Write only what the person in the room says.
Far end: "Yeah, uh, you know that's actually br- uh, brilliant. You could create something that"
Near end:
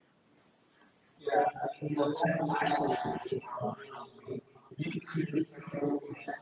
none

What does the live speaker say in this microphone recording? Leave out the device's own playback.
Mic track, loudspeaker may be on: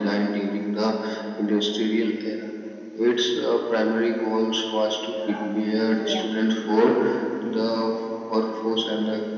Yeah.

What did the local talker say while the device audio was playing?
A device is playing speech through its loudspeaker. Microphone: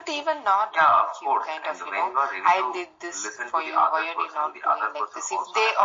none

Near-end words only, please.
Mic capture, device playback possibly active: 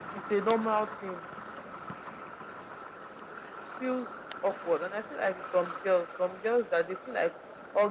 none

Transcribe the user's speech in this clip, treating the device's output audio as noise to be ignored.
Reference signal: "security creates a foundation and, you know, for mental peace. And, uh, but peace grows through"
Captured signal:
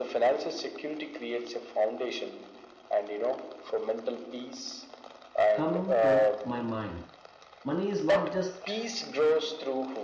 come to my mind money is not just

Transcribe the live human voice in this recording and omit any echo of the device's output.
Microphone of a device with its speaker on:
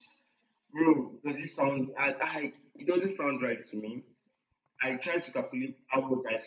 none

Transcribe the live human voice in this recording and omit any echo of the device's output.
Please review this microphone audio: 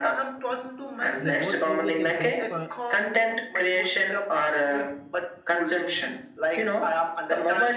they both give you the best for

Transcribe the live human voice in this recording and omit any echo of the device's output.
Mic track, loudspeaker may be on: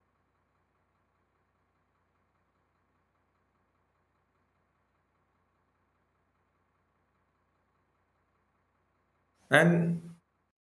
And

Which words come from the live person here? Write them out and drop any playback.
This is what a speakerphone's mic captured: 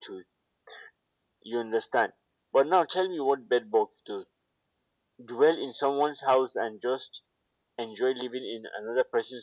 none

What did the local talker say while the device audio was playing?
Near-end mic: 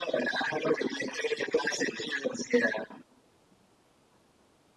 none

